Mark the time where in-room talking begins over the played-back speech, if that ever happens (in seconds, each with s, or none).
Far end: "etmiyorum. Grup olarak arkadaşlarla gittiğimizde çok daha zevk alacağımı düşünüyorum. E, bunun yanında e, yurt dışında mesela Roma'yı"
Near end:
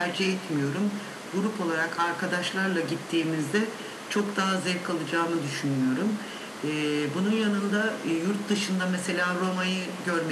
none